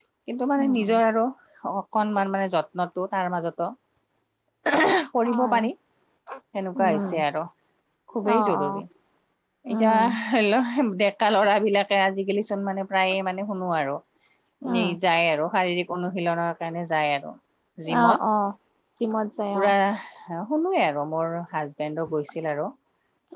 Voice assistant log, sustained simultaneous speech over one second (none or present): none